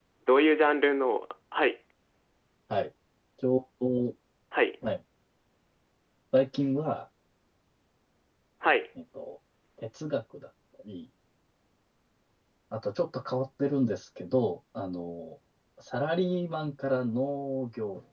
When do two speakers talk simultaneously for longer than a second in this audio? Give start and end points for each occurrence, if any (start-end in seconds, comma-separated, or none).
none